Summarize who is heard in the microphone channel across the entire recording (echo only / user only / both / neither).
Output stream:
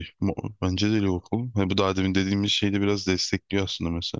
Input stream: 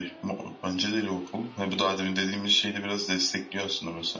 echo only